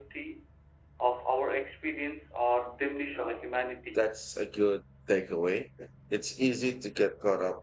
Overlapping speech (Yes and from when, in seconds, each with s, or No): No